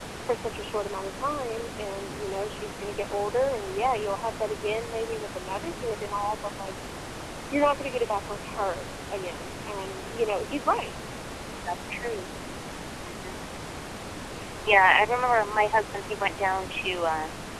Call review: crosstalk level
none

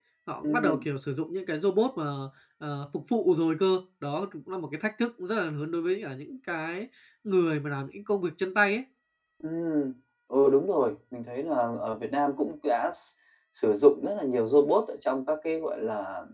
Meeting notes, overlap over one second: none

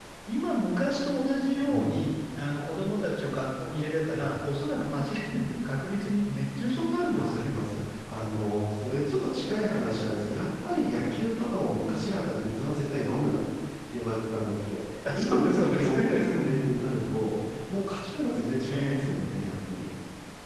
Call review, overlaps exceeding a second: present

